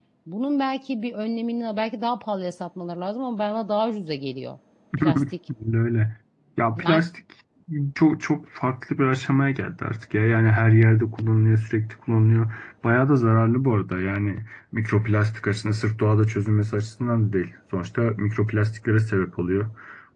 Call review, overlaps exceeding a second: none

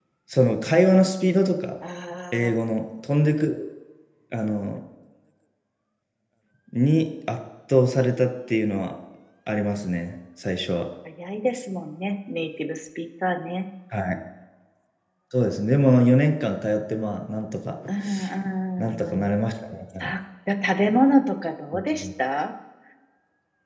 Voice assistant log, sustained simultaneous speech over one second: none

